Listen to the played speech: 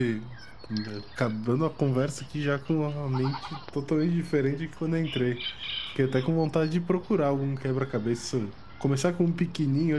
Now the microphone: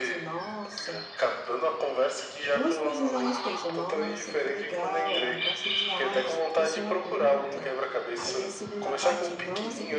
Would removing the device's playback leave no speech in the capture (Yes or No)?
No